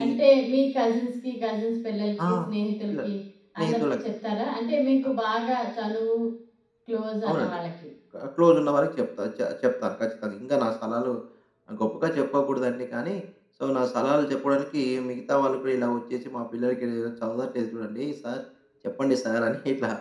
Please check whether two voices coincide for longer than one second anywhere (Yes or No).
No